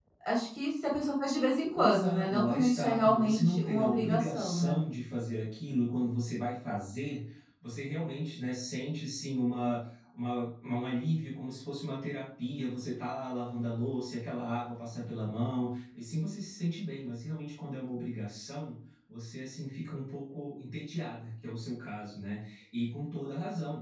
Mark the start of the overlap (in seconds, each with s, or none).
1.8 s